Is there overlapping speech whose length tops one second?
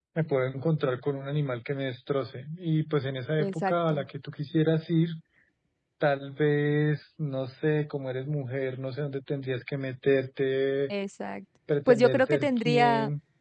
Yes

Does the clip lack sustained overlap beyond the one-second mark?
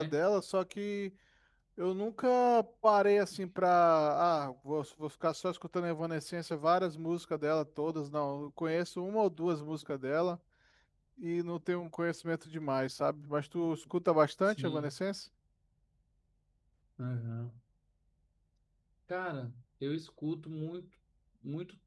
Yes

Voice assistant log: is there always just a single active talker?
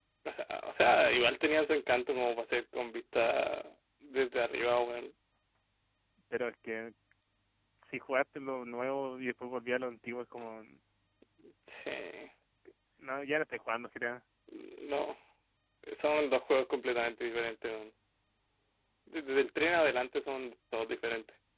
Yes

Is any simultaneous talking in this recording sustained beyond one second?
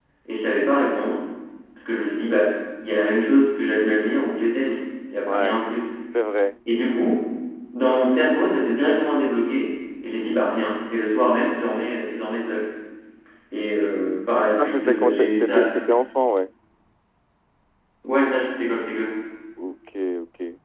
Yes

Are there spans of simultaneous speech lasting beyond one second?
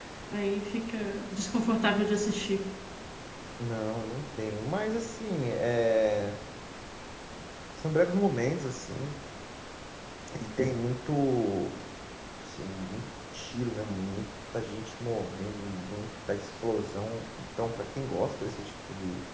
No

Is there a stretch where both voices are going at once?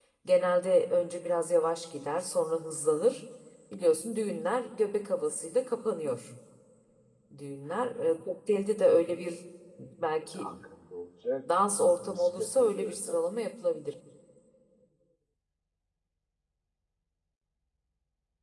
Yes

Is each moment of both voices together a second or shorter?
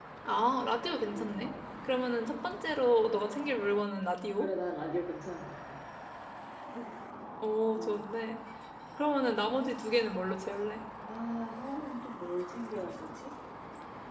Yes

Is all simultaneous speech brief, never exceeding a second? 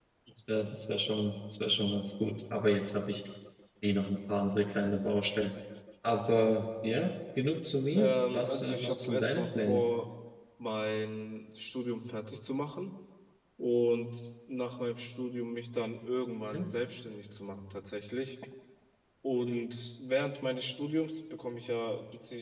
No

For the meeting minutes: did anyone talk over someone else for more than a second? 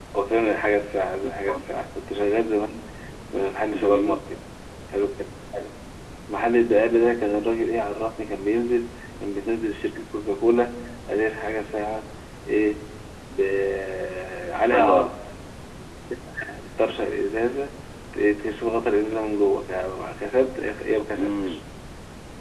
No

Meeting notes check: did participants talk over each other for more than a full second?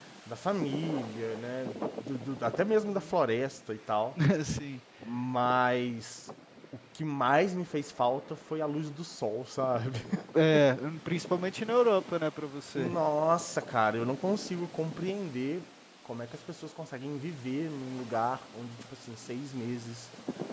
No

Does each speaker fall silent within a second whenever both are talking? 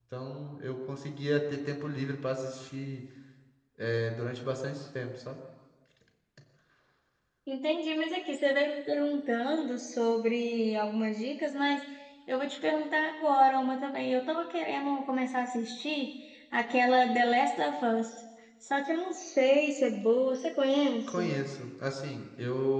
Yes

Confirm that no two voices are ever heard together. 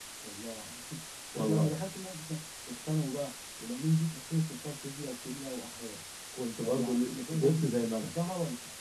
No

